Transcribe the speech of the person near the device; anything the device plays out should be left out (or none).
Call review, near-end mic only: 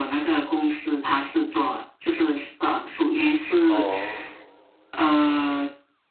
哦，